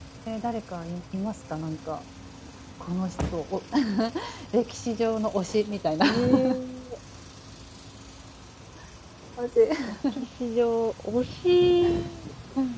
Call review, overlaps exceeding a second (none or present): none